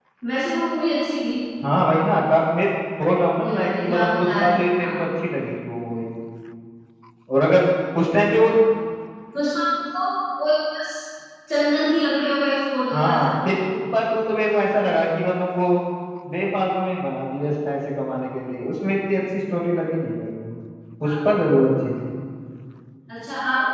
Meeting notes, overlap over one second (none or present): present